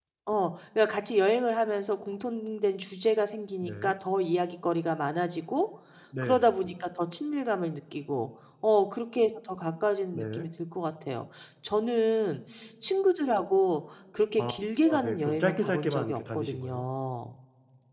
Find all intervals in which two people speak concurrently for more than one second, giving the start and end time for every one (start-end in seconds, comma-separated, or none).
14.9-16.8